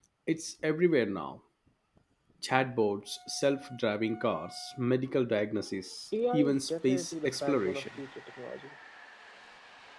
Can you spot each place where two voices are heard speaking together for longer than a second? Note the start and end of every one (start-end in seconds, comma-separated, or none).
6.3-7.9